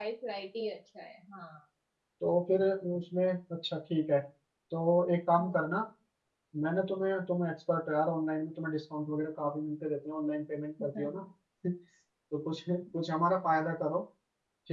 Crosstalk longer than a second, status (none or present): none